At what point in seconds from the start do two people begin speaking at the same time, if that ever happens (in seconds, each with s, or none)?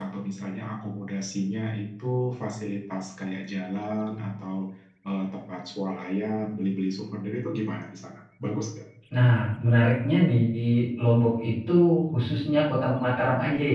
none